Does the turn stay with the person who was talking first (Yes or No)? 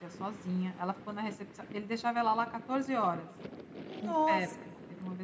Yes